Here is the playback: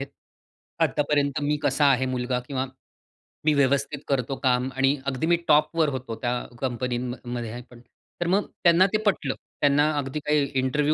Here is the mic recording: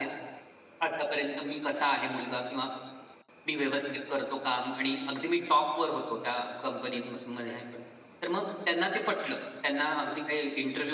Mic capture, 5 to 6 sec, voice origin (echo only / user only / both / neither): echo only